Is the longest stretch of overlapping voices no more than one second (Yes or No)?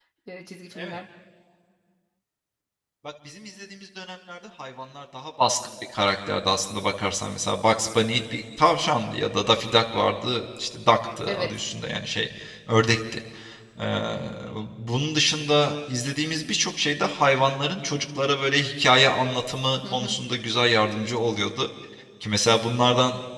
Yes